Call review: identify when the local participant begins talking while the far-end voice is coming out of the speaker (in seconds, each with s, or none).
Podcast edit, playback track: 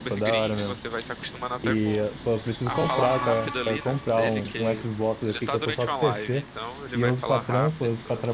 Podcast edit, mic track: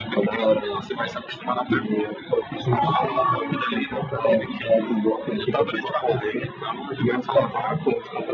none